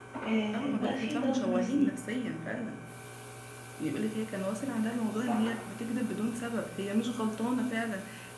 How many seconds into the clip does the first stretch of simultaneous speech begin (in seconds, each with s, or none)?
0.5 s